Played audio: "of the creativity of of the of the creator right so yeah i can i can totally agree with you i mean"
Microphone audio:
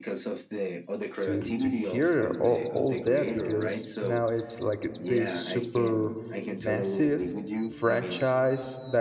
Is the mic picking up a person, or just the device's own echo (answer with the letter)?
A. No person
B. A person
B